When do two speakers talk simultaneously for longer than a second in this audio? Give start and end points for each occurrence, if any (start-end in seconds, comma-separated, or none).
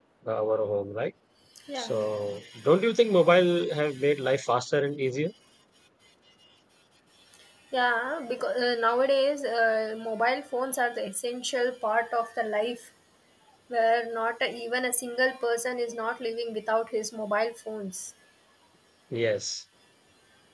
none